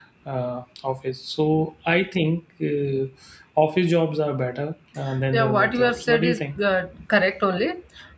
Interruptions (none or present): present